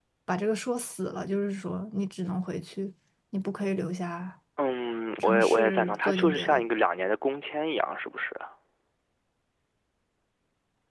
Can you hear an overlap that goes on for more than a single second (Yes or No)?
Yes